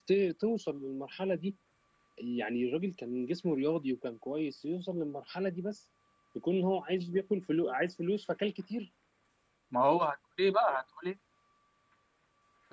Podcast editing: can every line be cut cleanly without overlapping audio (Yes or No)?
Yes